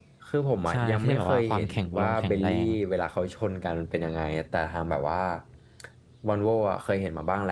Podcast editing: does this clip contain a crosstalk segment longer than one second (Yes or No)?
Yes